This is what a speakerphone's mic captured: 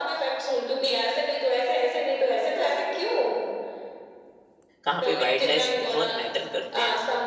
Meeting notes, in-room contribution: present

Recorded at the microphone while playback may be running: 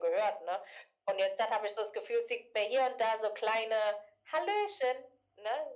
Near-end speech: none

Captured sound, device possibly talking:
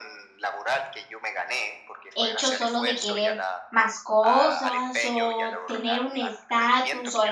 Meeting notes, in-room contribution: present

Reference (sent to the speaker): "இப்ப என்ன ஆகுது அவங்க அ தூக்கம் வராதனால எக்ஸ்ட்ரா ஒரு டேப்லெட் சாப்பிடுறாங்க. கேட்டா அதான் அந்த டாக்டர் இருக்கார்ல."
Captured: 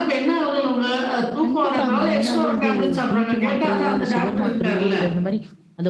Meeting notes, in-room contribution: present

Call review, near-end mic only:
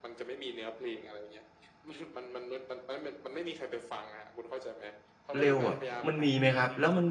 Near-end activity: present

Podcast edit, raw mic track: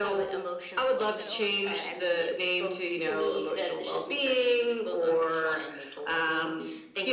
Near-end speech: present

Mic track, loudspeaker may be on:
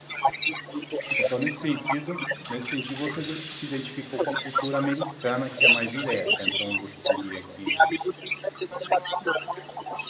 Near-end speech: present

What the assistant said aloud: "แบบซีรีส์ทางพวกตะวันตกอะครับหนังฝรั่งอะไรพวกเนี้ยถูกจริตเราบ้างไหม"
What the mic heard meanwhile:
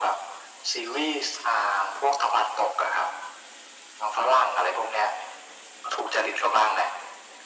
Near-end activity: none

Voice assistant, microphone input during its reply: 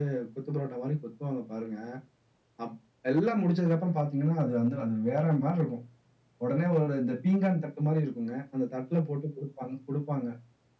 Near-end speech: none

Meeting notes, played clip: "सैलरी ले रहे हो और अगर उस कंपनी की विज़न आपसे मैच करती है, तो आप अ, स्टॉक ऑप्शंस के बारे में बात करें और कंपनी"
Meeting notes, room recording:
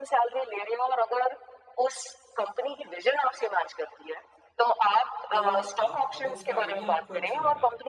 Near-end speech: present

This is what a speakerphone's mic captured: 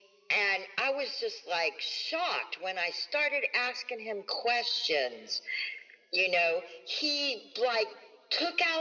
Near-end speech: none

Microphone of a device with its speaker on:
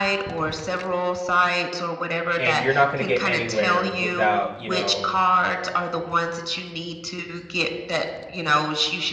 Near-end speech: present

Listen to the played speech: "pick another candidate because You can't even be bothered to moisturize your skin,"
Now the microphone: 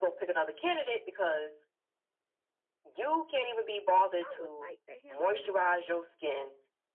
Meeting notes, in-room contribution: present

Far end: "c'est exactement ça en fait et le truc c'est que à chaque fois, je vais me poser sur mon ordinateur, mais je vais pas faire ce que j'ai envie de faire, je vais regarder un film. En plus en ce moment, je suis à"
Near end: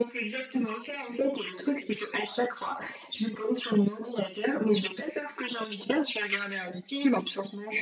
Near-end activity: none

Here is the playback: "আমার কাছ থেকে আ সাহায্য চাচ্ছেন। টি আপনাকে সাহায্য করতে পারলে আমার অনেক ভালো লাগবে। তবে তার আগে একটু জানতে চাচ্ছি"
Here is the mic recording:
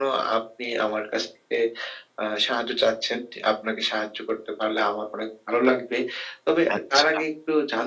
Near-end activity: present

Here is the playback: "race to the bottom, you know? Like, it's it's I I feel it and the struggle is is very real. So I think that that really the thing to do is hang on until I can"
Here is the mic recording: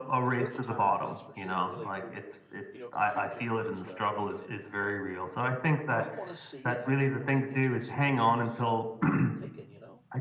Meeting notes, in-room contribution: present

